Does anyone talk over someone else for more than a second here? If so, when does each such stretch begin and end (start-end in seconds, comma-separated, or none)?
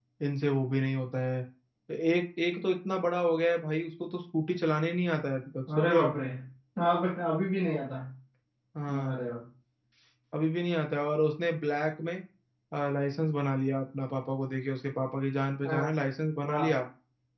none